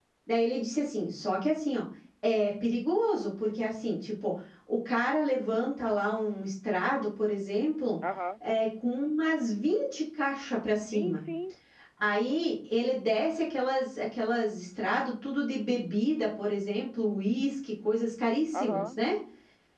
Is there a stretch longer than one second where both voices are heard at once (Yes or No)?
No